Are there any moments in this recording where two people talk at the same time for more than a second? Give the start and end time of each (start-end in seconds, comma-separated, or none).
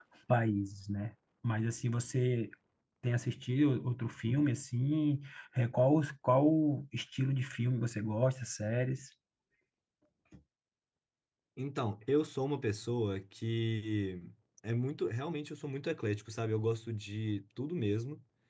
none